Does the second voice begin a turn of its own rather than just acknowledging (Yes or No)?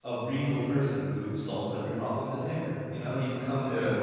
Yes